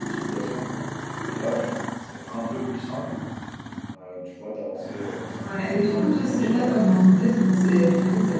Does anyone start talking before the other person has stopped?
Yes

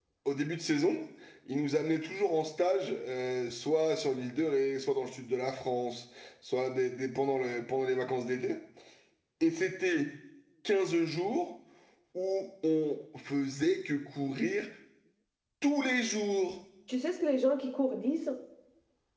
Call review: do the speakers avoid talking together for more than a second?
Yes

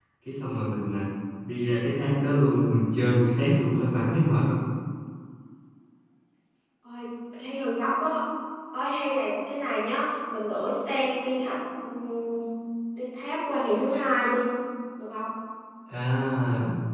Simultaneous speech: No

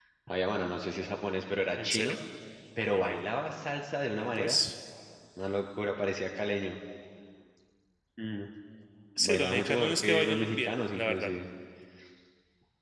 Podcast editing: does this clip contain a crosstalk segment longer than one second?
Yes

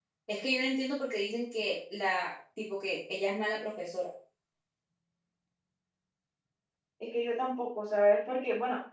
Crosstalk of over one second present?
No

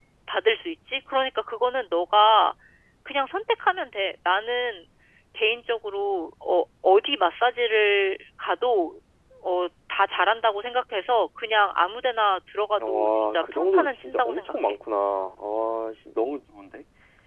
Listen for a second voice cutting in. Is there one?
Yes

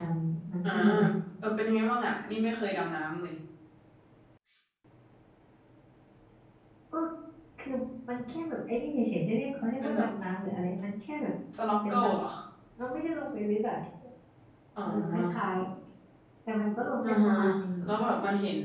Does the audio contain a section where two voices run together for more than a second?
No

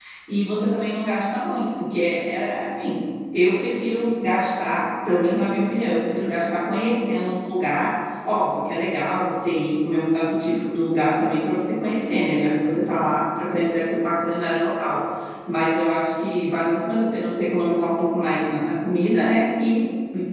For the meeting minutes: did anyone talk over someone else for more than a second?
No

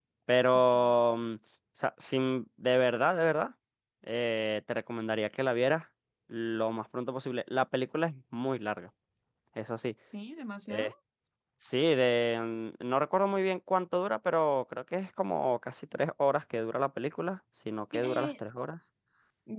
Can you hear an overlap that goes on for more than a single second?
No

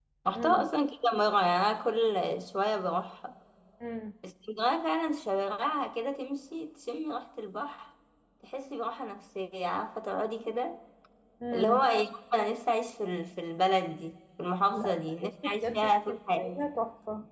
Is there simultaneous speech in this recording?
Yes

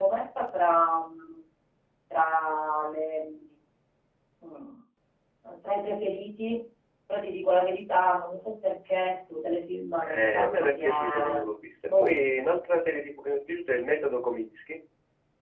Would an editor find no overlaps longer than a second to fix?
No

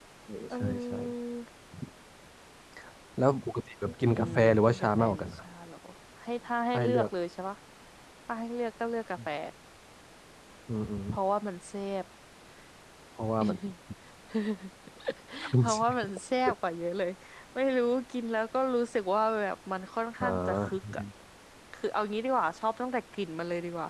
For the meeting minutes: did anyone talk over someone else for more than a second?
Yes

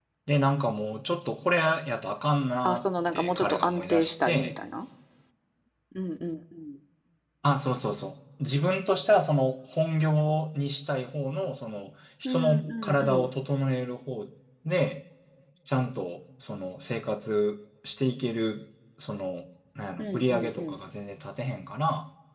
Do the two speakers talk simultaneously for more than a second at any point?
Yes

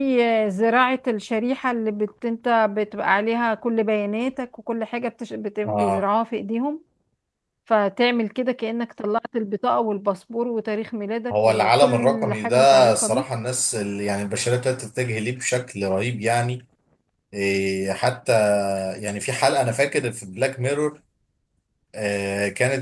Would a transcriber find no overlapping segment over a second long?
No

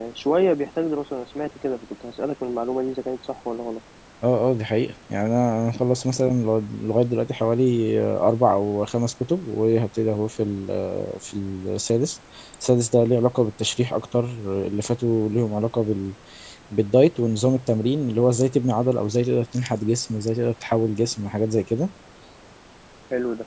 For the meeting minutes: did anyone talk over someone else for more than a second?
No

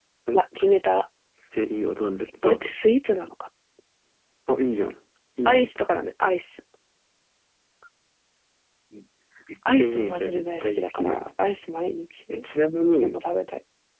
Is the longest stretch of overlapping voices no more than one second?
No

